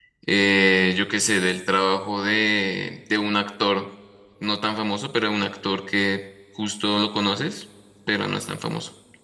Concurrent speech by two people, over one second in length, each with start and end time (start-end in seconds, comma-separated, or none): none